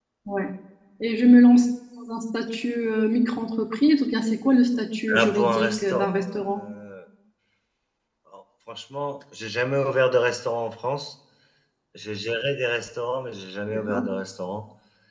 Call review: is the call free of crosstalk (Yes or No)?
No